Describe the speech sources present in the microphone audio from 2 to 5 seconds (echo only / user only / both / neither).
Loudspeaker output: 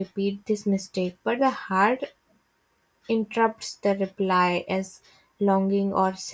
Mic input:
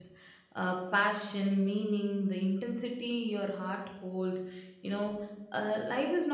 user only